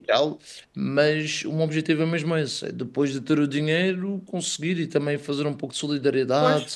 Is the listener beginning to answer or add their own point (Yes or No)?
Yes